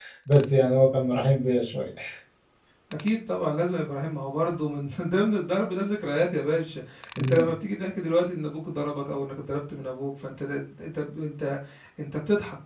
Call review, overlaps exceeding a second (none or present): none